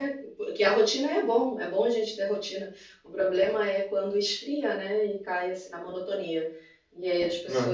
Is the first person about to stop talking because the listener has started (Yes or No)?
No